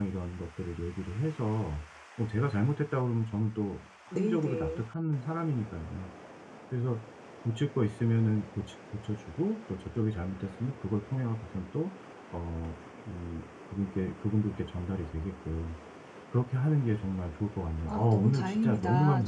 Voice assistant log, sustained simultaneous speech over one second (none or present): present